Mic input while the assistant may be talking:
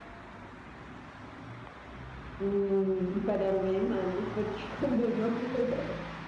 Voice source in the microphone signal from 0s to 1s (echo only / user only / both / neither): neither